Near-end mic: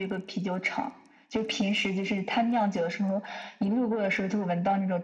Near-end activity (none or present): none